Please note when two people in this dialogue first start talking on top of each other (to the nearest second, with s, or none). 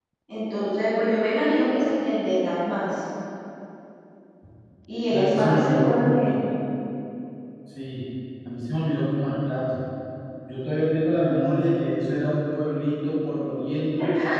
5 s